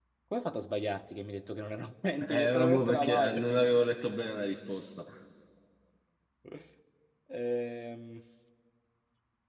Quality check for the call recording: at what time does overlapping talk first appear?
2.2 s

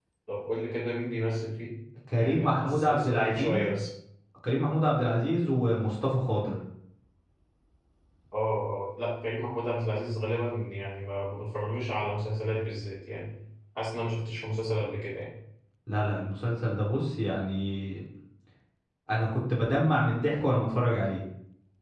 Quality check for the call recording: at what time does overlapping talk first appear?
2.1 s

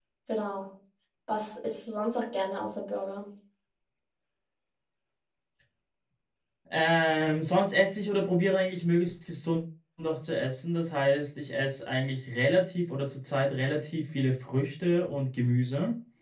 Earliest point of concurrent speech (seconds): none

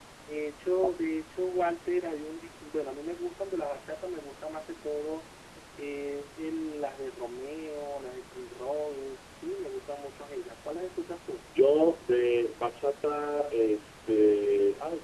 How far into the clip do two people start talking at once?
none

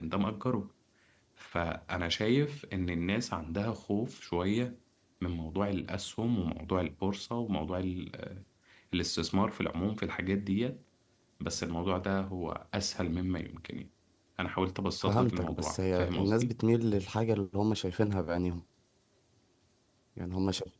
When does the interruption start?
15.0 s

